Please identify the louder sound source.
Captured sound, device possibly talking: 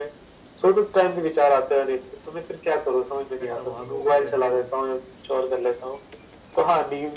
echo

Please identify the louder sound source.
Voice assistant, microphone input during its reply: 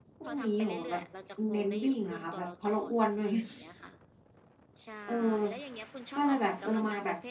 user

